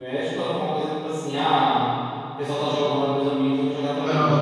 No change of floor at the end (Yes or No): No